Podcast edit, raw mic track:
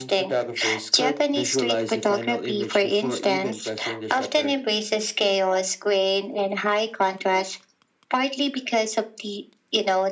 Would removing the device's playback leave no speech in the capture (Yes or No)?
Yes